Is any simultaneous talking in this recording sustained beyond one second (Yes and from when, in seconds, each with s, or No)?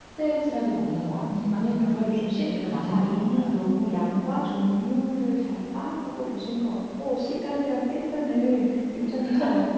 Yes, from 1.4 s